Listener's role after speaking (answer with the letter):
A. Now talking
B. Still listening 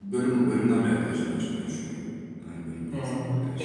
A